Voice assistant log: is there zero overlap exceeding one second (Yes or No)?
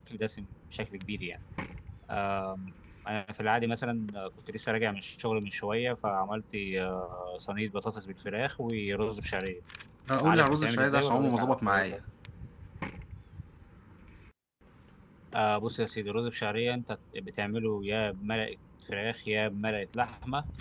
No